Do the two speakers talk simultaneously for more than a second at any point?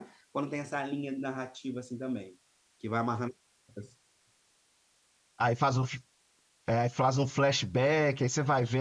No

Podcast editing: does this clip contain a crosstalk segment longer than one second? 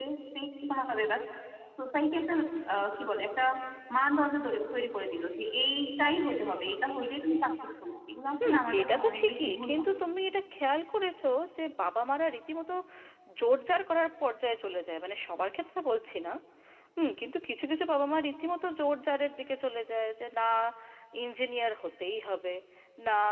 Yes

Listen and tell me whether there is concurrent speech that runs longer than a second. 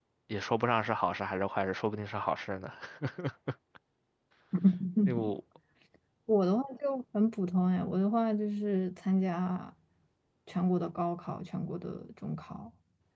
No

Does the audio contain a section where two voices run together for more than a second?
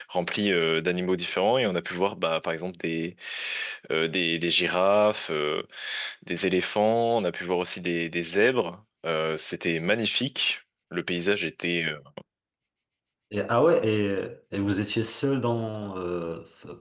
No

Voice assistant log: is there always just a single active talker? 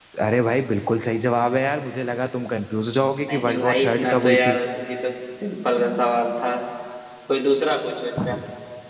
No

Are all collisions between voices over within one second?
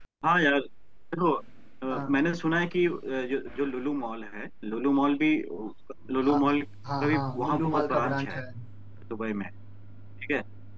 No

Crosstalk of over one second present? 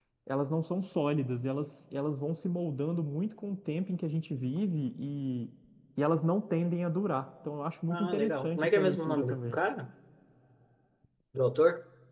Yes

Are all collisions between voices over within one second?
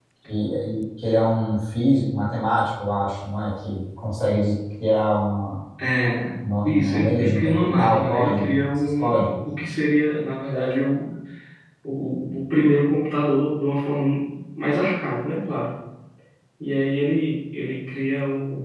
No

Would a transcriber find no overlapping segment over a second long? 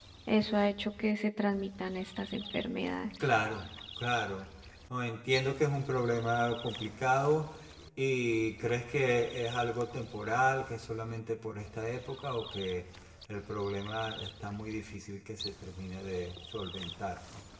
Yes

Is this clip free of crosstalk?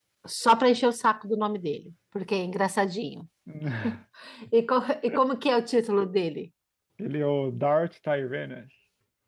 Yes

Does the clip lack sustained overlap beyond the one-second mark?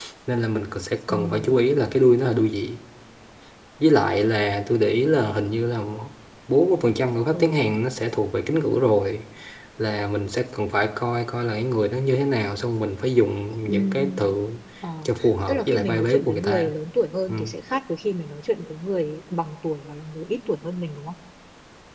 No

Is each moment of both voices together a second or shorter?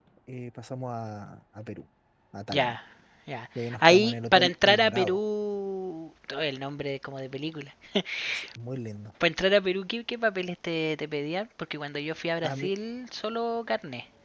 No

